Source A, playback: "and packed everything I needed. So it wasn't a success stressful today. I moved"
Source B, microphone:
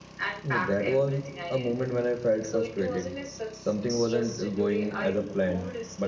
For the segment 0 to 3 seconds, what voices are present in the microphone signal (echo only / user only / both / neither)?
both